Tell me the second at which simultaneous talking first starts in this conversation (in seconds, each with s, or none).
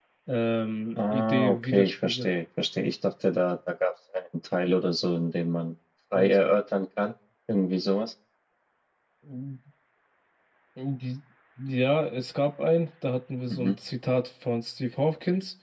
1.1 s